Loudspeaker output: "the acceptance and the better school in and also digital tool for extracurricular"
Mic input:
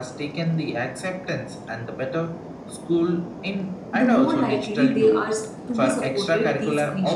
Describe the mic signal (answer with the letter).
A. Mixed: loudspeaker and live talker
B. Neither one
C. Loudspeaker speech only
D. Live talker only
A